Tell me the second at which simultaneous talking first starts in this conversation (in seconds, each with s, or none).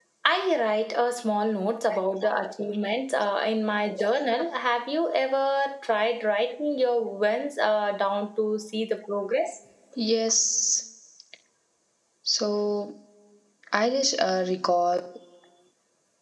none